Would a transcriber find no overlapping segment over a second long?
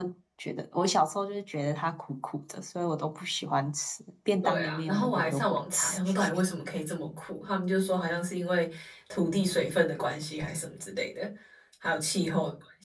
No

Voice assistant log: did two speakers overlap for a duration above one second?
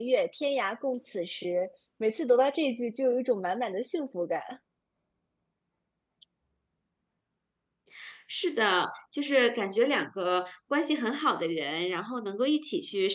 No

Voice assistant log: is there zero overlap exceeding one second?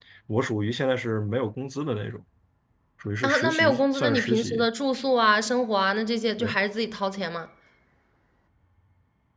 No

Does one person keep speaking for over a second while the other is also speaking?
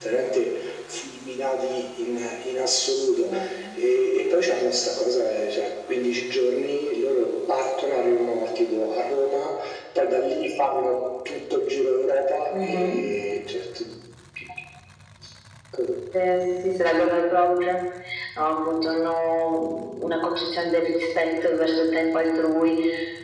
No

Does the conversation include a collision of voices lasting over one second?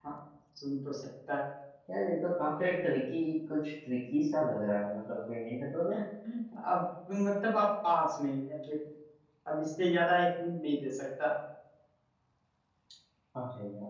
No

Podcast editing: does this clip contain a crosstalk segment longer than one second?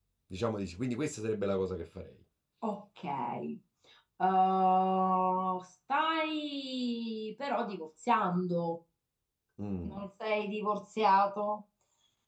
No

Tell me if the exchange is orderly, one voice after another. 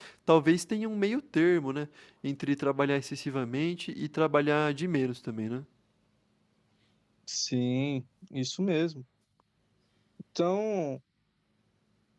Yes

